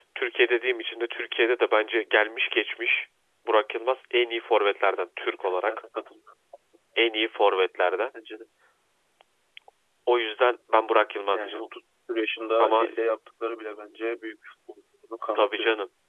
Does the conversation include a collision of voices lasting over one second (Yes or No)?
No